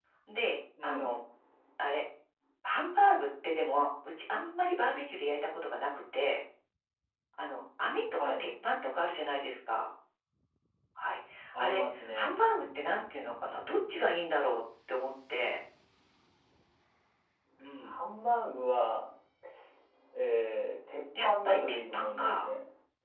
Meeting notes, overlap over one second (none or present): present